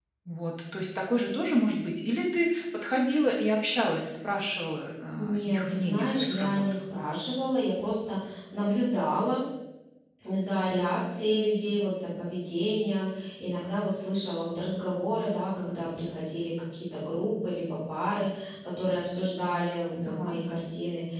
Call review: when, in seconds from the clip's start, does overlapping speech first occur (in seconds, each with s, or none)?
5.2 s